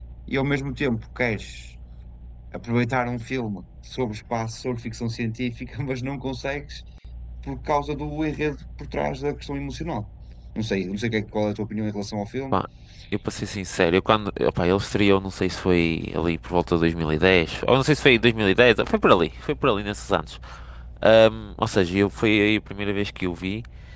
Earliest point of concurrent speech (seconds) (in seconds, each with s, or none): none